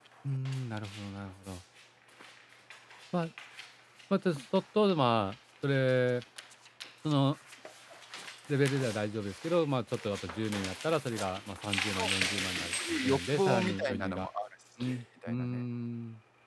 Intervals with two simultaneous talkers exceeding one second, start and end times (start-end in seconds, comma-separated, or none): 12.9-14.3